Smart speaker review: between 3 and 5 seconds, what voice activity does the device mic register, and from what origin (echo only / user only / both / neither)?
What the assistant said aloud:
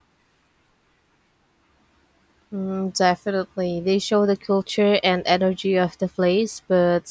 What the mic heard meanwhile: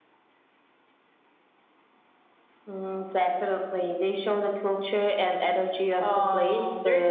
echo only